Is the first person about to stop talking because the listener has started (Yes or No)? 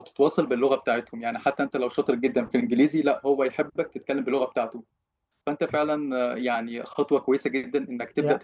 No